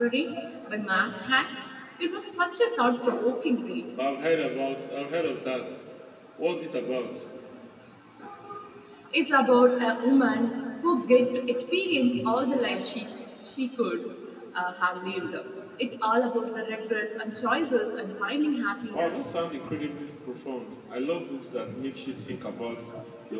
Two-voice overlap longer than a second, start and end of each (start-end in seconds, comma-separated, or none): none